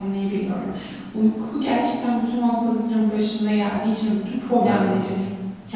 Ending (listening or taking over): listening